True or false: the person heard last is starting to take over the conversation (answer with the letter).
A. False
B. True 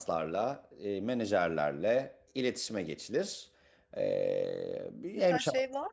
B